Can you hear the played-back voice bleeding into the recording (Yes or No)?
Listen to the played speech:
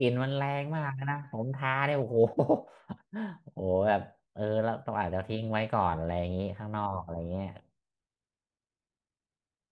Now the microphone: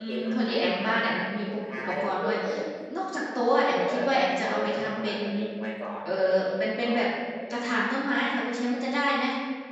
Yes